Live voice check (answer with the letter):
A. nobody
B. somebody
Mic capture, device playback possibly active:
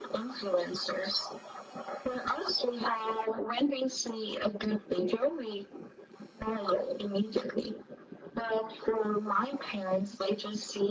A